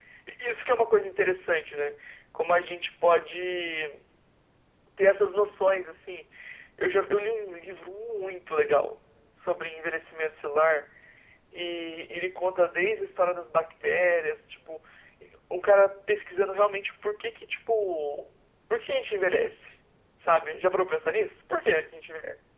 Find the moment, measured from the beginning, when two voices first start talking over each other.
none

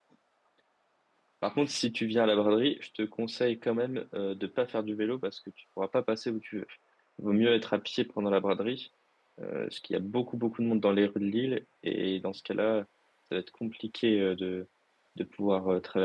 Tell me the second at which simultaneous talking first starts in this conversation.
none

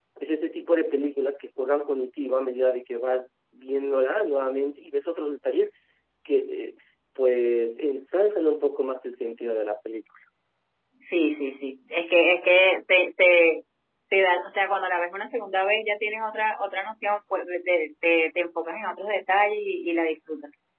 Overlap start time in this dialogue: none

